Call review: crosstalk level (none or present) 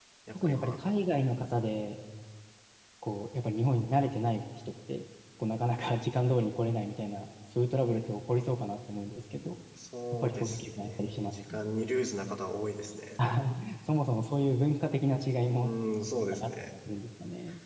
present